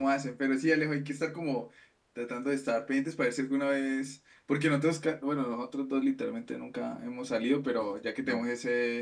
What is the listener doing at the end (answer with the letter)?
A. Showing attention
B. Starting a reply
A